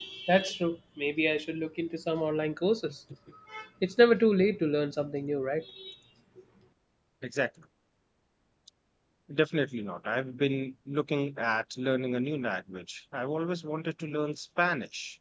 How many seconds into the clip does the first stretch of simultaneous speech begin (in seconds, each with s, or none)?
none